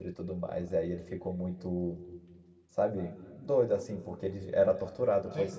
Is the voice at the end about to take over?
No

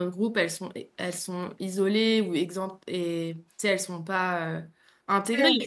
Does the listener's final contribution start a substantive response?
No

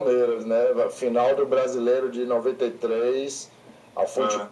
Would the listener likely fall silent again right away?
Yes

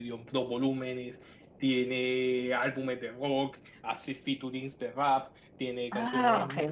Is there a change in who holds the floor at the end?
Yes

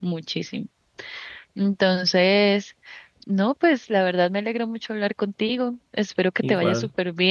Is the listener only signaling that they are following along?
Yes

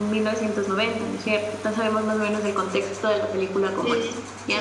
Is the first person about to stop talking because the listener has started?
Yes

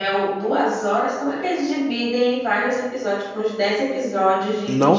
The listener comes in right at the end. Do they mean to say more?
Yes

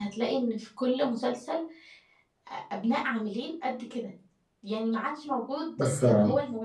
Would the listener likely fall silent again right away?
Yes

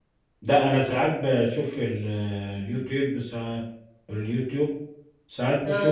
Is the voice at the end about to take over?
No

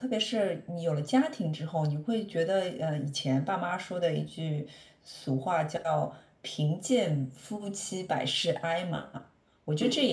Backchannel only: Yes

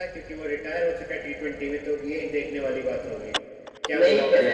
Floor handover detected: Yes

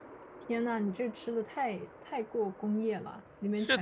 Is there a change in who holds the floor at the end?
Yes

